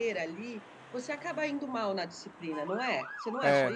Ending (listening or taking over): taking over